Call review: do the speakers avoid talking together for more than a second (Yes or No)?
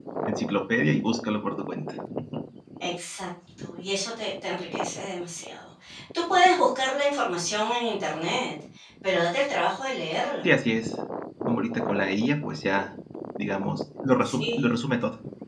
Yes